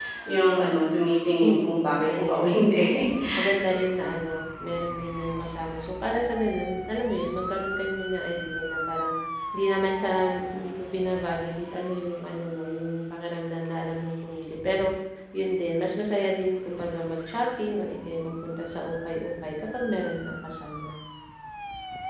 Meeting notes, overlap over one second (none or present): present